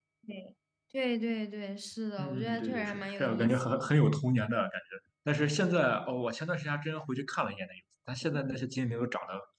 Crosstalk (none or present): present